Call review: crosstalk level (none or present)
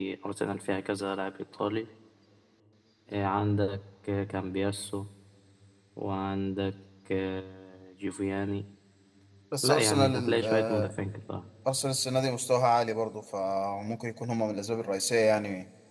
present